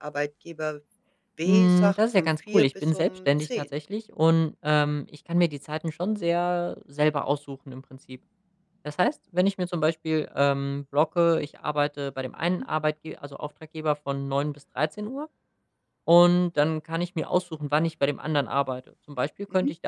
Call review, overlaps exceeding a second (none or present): present